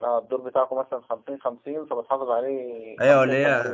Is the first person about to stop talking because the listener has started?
Yes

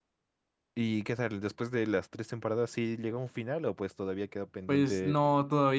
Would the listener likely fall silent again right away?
No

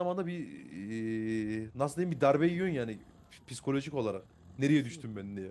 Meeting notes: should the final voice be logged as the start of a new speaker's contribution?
Yes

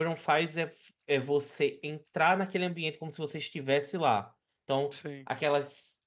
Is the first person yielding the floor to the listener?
No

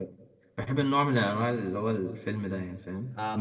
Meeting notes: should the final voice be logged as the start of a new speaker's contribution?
Yes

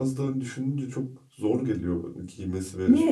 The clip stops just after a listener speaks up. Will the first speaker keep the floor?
No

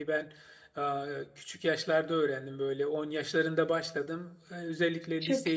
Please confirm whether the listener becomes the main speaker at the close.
No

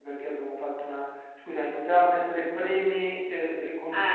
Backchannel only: Yes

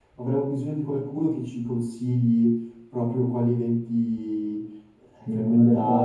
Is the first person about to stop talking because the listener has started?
Yes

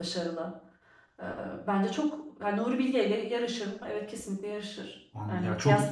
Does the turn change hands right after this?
Yes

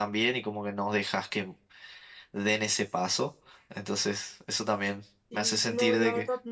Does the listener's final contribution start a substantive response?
Yes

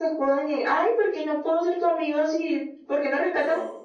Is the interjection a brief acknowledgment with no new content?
Yes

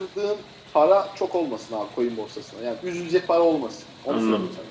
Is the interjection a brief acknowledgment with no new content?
No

